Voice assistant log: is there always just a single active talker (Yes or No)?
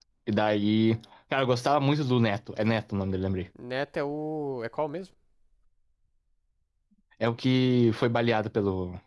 Yes